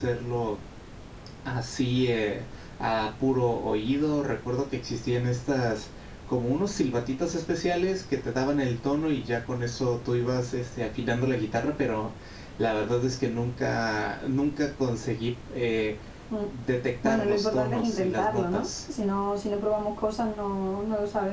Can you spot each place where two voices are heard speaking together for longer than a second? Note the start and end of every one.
17.0-18.7

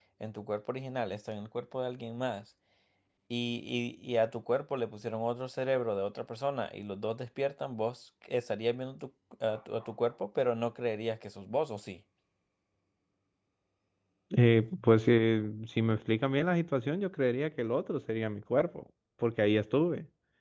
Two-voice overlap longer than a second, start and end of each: none

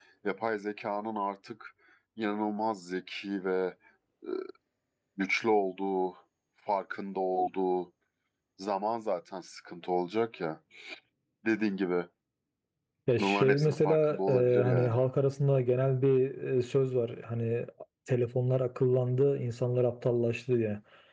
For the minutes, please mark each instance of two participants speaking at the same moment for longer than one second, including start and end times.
13.2-15.0

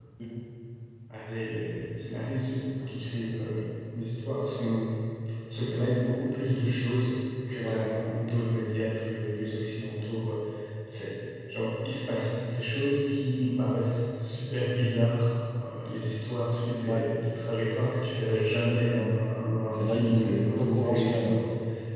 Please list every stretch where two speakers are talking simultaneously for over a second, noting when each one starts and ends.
19.7-21.4

